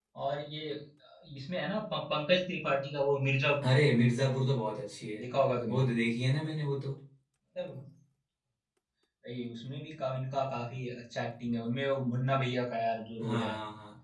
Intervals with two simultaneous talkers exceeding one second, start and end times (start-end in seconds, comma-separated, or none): none